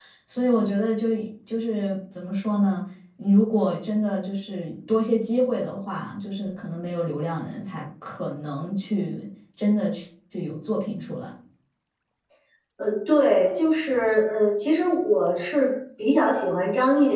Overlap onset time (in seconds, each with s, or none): none